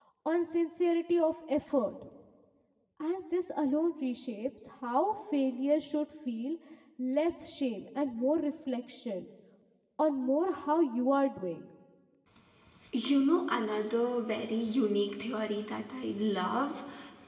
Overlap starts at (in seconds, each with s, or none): none